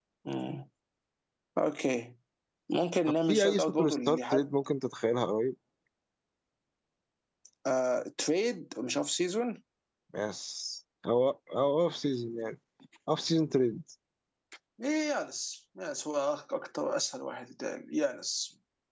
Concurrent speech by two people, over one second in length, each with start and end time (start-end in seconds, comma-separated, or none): 3.3-4.5